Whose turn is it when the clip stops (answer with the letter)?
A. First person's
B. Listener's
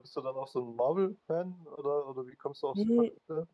B